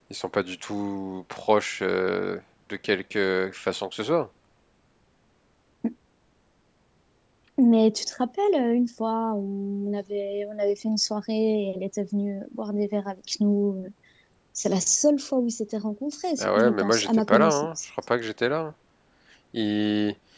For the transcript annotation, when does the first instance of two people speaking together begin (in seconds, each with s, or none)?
16.4 s